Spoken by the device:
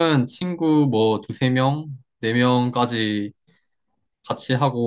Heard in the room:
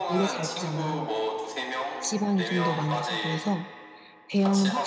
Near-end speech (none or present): present